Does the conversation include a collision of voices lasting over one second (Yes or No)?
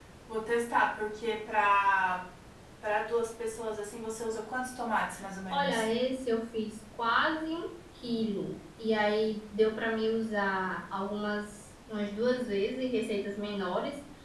No